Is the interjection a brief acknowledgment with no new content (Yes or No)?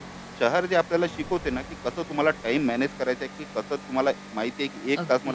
Yes